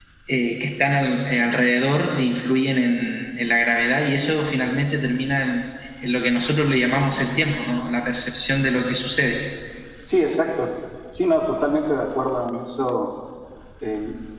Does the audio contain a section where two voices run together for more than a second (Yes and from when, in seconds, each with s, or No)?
No